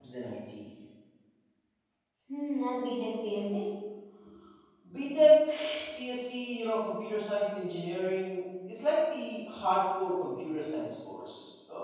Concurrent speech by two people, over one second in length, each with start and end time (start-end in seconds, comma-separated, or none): none